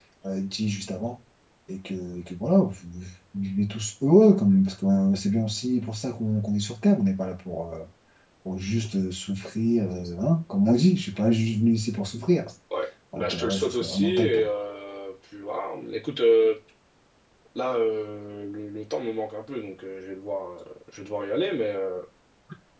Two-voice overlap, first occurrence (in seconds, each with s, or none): 13.2 s